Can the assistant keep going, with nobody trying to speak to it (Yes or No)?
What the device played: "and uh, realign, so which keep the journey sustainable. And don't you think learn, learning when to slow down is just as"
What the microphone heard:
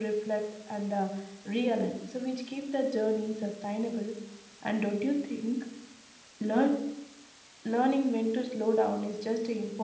Yes